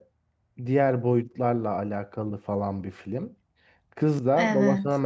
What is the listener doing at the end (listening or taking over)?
listening